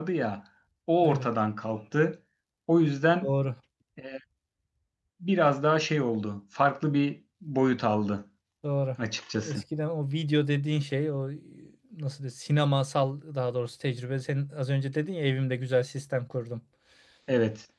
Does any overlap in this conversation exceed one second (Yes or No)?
No